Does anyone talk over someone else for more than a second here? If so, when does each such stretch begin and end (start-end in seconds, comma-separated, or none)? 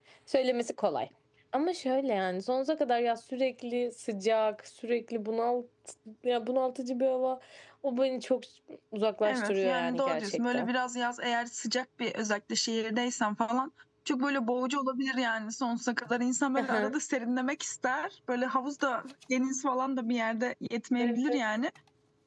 9.2-10.7